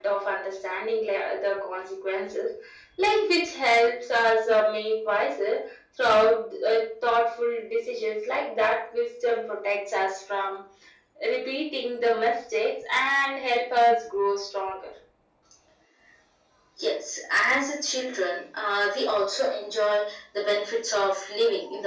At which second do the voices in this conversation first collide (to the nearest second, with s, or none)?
none